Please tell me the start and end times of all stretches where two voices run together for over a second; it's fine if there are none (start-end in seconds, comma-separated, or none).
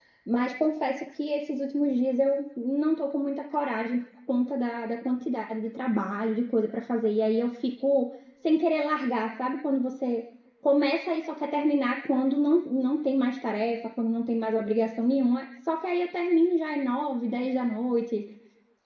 none